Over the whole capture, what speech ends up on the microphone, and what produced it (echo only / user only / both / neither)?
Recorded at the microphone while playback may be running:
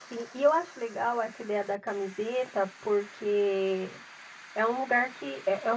user only